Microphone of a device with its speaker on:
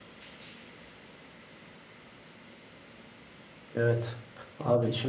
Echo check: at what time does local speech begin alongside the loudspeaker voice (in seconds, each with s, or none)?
3.7 s